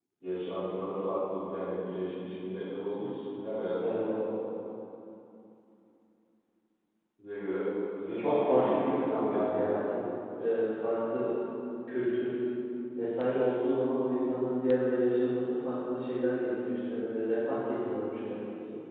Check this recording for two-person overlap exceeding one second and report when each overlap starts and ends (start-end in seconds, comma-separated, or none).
8.2-9.8